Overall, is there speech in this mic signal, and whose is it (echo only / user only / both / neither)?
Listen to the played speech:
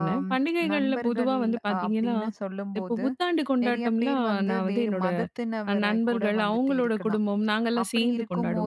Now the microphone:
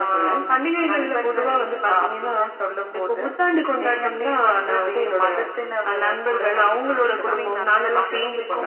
both